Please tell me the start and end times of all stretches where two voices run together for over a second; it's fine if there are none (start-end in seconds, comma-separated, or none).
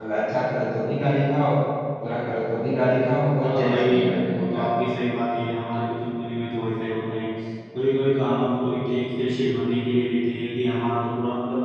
3.5-4.7